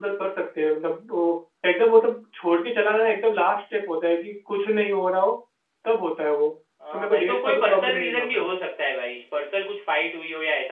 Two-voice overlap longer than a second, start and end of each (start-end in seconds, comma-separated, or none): 6.9-8.5